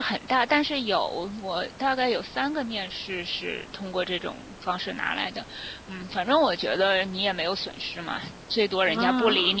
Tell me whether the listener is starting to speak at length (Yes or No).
No